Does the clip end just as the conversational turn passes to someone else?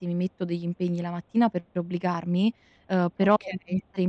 No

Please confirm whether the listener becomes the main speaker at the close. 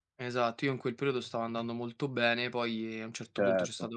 No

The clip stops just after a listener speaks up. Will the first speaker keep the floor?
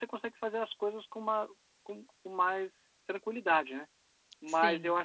Yes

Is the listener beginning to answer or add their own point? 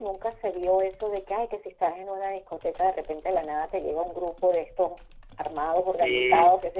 No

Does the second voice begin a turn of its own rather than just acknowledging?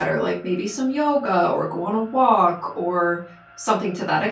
No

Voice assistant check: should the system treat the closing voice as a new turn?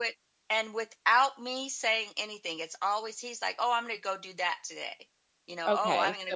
Yes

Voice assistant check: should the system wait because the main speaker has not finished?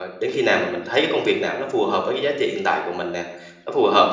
Yes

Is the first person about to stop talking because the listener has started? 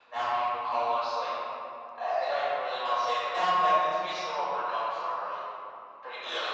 No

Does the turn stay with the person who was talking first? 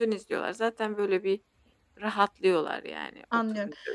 No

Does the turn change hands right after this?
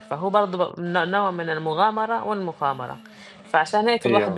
No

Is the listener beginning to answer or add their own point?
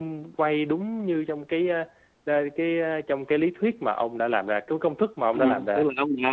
Yes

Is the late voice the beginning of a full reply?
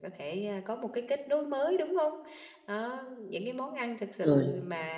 No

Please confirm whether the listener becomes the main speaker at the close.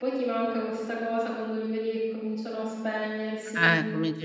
Yes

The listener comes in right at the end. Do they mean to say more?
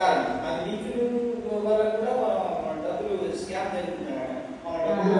No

